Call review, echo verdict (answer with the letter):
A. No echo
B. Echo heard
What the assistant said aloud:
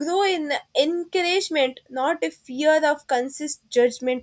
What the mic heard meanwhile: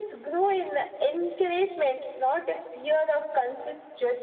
B